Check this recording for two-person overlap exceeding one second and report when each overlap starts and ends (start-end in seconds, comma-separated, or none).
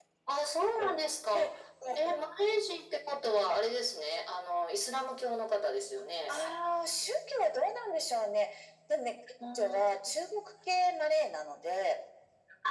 none